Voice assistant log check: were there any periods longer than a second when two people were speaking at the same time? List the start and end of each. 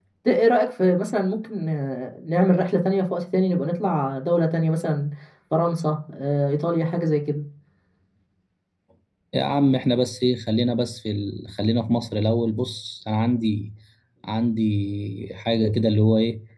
none

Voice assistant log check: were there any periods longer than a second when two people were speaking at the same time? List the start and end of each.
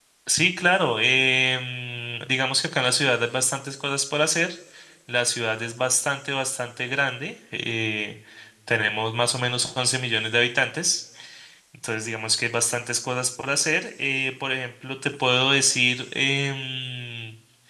none

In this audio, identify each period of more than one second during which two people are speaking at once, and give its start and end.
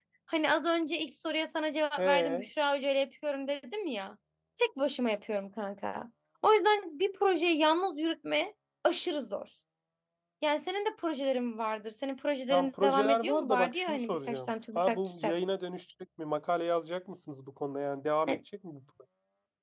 12.5-15.3

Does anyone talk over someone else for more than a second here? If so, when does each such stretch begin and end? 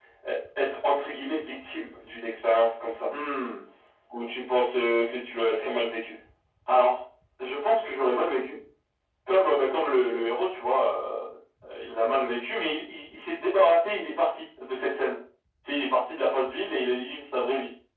none

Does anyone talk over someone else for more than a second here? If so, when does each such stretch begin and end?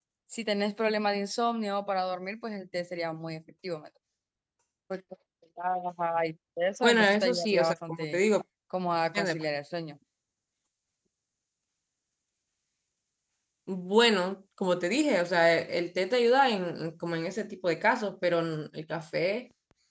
6.8-8.2

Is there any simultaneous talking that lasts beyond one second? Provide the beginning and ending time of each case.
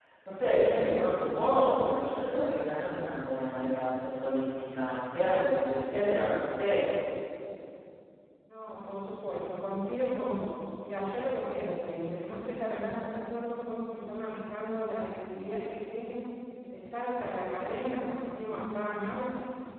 none

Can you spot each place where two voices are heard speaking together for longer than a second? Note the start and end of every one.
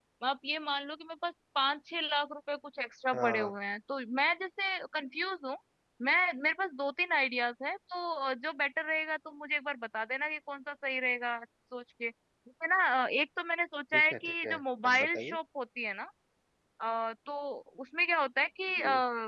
13.9-15.4

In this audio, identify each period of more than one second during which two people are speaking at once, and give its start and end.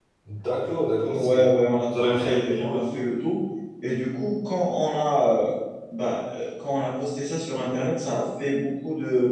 1.9-3.1

